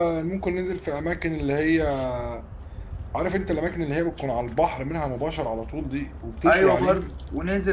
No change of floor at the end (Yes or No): No